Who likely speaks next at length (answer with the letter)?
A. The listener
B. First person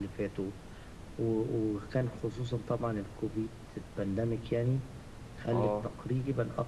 B